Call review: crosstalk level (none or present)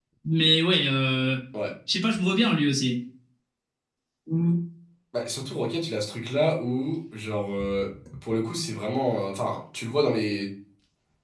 none